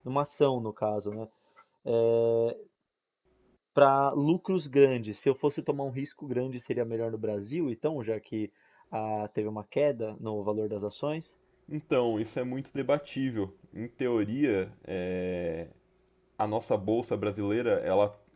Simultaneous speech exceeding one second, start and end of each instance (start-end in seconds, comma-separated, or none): none